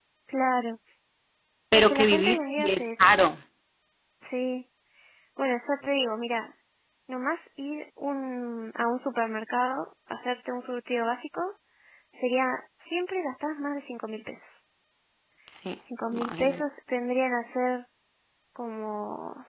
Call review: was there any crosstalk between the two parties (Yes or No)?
Yes